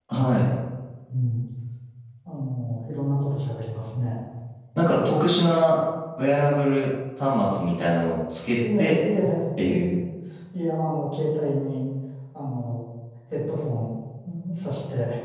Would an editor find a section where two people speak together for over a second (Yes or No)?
No